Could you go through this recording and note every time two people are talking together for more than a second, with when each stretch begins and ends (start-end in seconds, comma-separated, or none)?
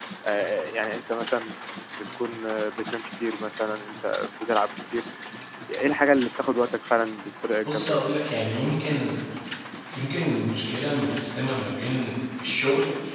none